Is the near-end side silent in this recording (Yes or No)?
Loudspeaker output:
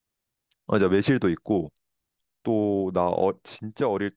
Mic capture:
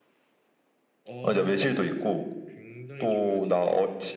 No